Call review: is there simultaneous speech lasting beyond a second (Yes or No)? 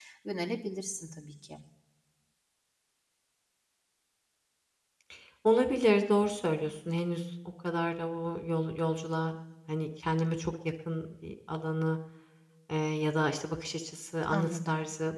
No